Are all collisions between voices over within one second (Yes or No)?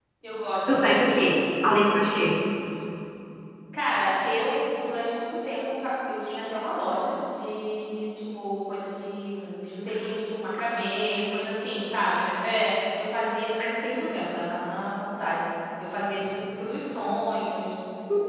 Yes